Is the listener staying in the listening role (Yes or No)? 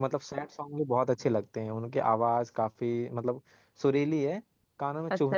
No